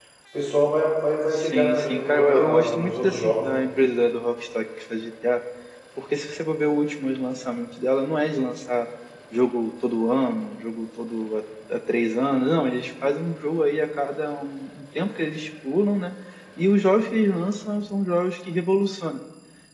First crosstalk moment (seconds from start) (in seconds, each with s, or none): 1.3 s